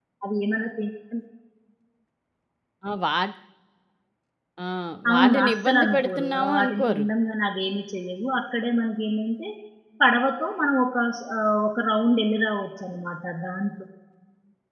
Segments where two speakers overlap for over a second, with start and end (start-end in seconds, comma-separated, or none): 5.1-7.0